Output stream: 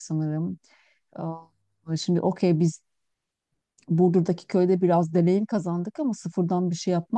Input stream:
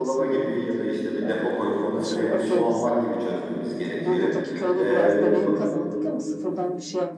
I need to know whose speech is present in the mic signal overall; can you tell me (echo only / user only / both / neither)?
both